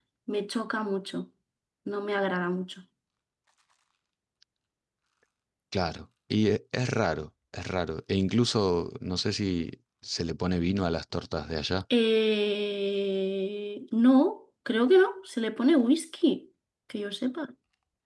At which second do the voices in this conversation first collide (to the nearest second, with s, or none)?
none